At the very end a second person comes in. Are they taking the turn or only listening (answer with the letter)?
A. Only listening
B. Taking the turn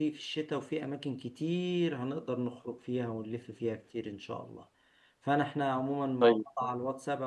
A